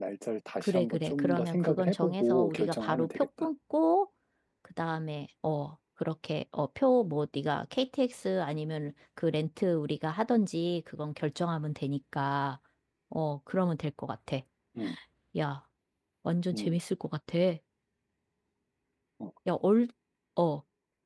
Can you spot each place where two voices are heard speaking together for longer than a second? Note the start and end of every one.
0.6-3.5

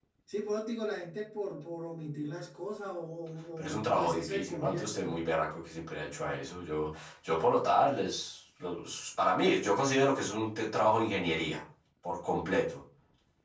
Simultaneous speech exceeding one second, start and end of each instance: 3.6-5.2

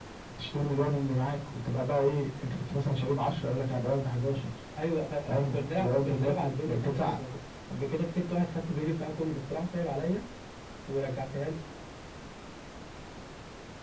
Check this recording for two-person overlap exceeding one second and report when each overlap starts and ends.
5.2-7.2

